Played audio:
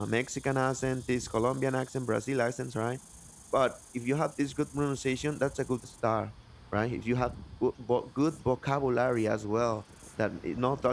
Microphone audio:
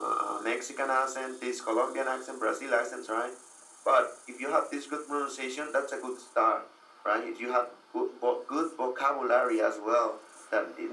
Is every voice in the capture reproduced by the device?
Yes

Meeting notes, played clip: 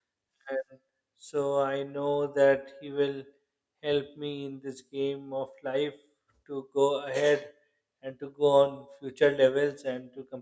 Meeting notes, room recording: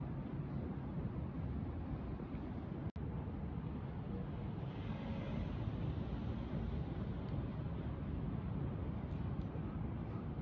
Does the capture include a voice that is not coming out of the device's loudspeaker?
No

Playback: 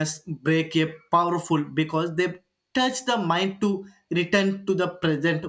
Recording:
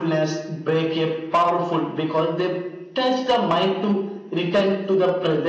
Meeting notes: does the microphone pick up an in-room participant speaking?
No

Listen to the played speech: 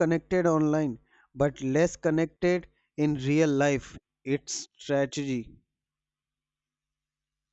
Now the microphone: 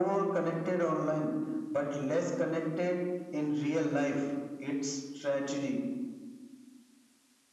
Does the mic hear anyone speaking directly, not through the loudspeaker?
No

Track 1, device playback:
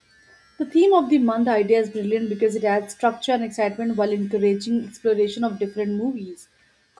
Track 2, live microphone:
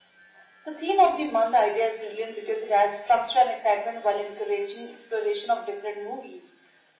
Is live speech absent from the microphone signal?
Yes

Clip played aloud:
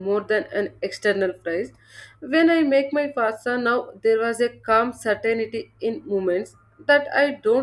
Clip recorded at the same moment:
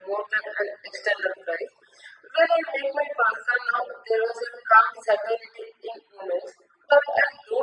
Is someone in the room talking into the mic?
No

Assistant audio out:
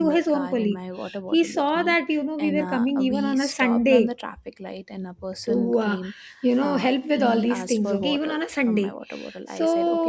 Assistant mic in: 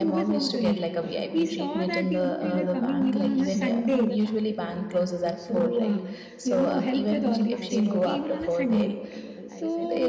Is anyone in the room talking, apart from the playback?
Yes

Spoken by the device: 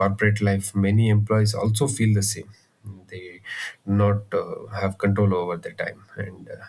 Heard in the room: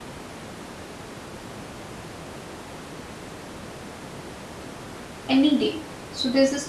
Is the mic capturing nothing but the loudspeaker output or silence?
No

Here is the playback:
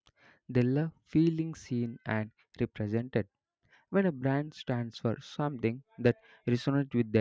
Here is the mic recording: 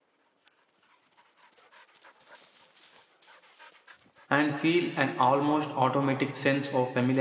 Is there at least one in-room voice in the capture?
Yes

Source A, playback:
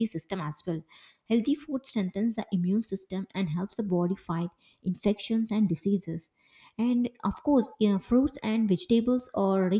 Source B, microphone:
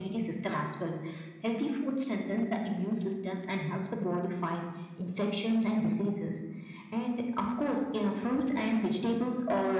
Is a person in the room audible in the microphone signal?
No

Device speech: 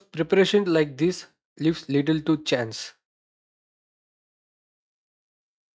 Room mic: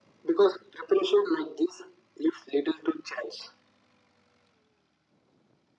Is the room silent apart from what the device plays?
Yes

